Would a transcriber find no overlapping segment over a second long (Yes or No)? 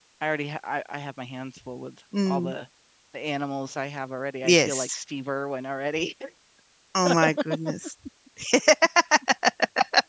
Yes